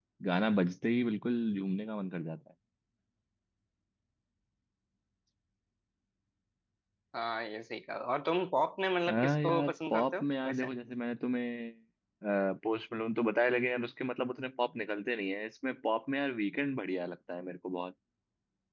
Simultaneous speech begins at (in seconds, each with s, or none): 9.1 s